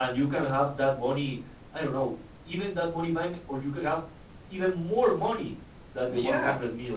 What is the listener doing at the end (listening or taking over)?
taking over